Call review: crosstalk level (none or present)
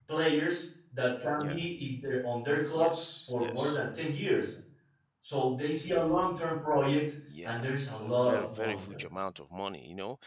present